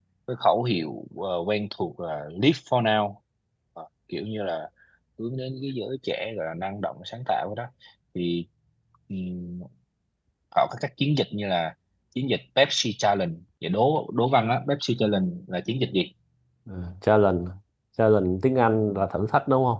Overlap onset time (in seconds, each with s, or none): none